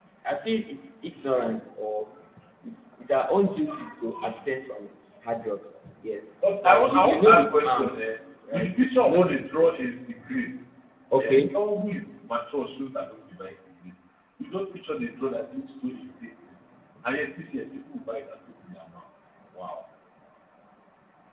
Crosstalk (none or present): present